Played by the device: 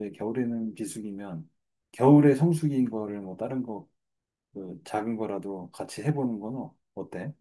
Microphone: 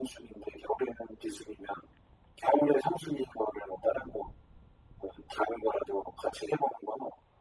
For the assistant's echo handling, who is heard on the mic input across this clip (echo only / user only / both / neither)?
echo only